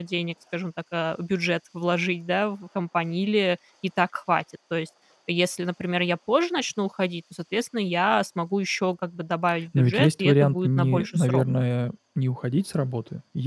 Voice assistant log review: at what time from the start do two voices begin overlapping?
9.7 s

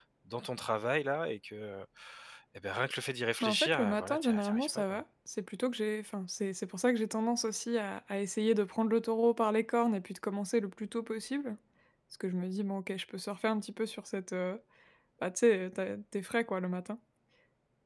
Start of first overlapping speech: 3.4 s

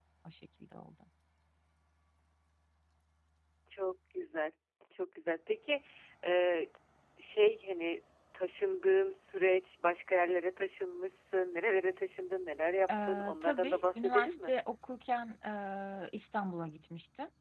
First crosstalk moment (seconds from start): 12.9 s

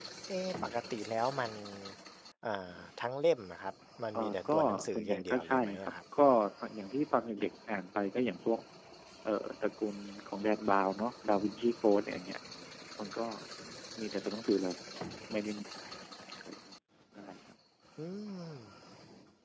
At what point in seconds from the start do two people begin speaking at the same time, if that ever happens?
4.1 s

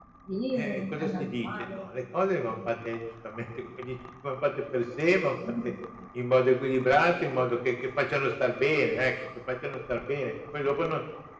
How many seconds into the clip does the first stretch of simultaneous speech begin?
0.6 s

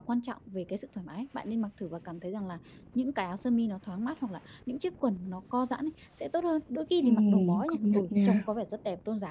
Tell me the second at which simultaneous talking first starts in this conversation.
7.0 s

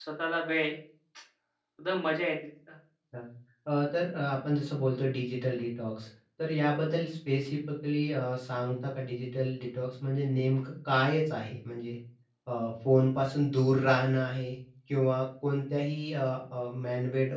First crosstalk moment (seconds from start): none

